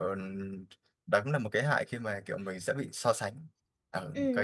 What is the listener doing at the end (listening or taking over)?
taking over